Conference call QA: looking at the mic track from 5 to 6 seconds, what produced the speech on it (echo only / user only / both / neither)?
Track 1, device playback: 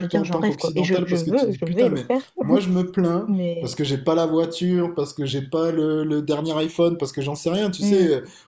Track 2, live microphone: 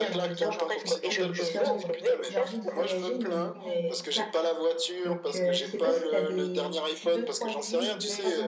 both